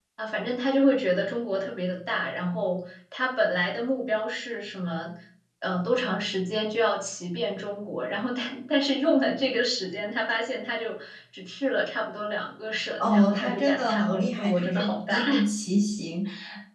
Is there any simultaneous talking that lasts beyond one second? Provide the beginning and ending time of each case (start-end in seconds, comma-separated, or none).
13.0-15.4